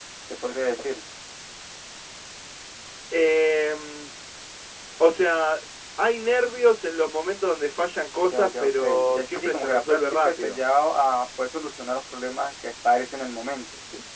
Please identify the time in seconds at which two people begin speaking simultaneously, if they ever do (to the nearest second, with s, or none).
8 s